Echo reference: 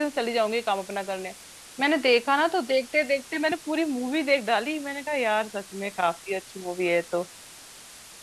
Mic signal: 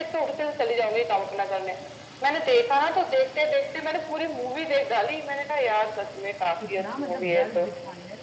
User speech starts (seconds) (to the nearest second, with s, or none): 7 s